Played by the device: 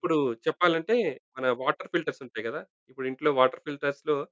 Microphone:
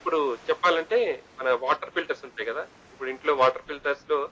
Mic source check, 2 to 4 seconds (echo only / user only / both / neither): echo only